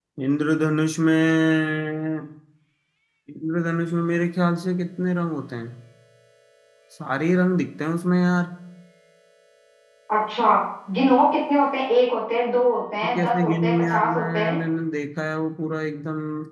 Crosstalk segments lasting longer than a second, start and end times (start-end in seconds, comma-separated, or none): 13.0-14.6